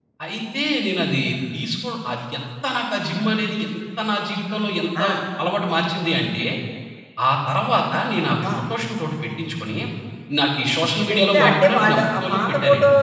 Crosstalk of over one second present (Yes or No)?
Yes